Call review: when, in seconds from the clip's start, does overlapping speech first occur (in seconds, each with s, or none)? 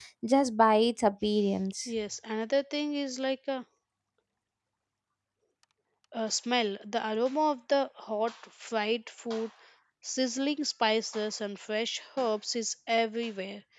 none